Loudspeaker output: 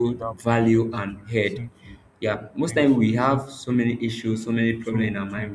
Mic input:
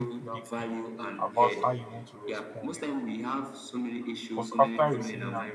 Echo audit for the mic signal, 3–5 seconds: both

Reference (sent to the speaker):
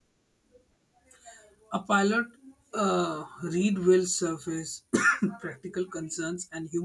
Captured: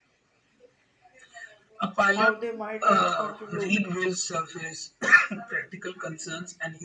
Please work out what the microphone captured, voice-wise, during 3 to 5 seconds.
both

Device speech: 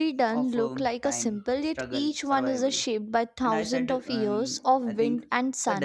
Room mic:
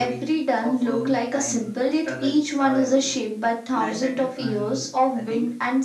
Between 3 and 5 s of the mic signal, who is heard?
echo only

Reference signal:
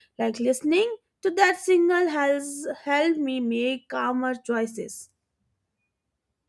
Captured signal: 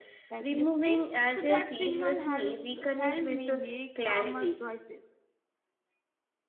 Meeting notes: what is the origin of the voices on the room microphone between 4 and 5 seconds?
both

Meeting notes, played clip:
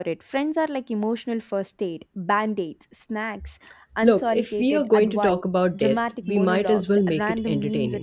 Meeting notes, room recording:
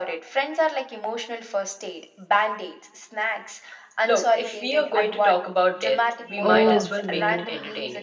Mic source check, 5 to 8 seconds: both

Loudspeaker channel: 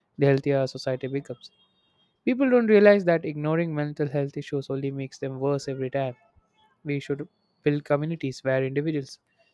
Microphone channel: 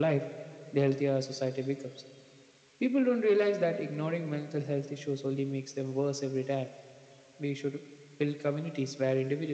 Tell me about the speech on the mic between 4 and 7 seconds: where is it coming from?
echo only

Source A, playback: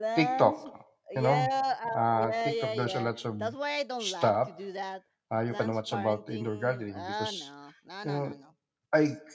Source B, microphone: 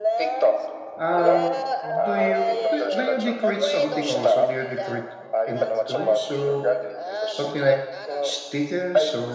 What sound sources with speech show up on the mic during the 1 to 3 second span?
both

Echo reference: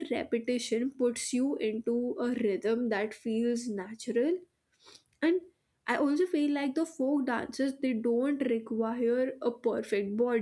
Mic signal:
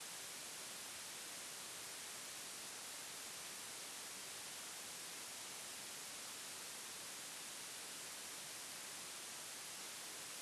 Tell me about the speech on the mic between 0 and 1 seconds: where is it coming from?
neither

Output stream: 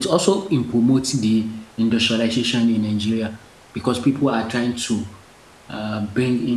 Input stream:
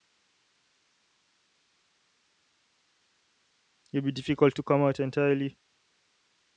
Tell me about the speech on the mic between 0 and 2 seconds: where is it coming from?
neither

